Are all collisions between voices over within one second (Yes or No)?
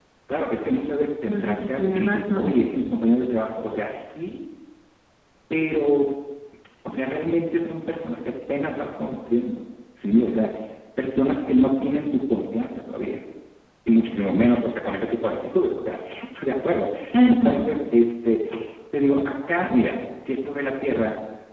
No